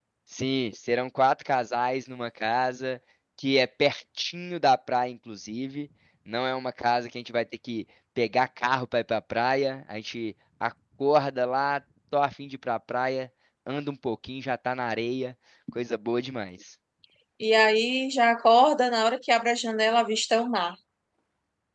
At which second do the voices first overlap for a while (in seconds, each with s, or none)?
none